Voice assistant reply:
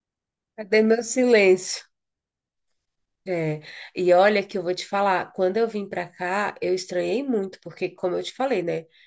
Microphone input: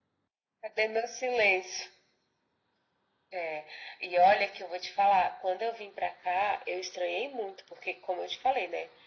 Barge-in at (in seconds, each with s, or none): none